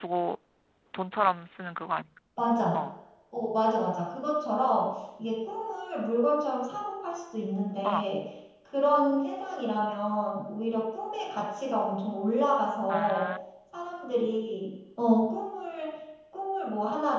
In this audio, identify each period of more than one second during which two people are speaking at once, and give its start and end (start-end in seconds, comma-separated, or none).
none